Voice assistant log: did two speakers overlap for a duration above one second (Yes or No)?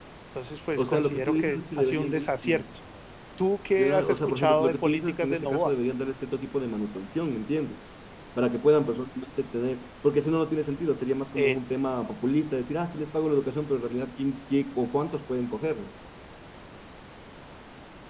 Yes